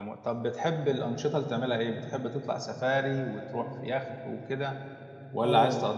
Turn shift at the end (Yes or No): Yes